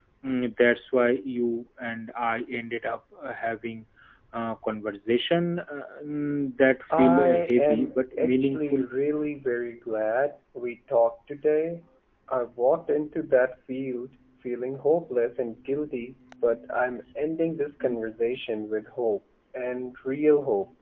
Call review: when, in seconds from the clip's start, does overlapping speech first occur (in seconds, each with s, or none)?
6.9 s